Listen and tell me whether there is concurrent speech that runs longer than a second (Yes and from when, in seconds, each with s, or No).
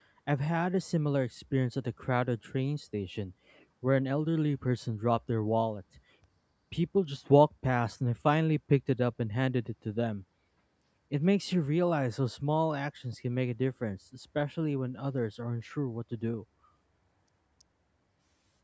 No